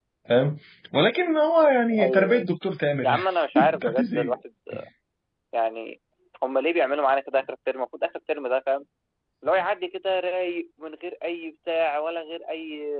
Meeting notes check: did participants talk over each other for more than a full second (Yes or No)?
Yes